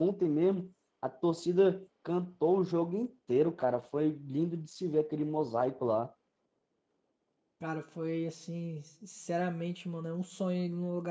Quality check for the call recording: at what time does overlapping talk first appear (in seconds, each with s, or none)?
none